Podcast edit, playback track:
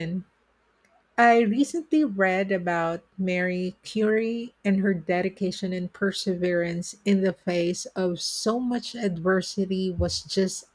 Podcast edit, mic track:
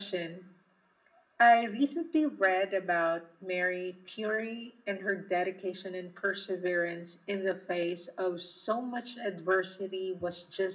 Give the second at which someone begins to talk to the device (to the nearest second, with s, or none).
none